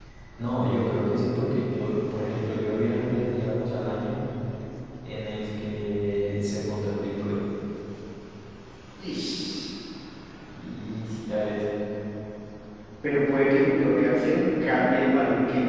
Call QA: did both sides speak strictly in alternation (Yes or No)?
Yes